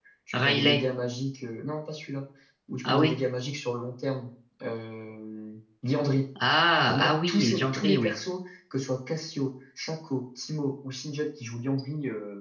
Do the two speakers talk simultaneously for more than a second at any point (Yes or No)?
Yes